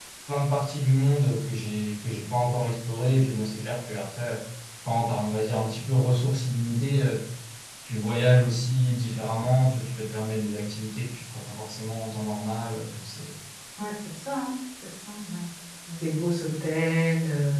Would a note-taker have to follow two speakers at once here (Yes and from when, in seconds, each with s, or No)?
No